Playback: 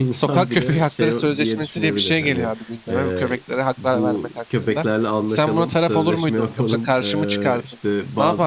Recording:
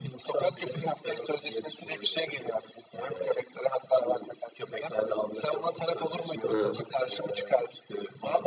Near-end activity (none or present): present